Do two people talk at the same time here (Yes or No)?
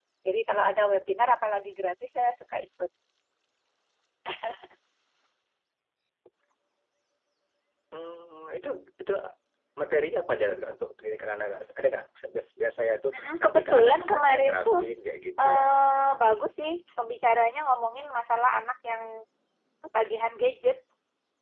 Yes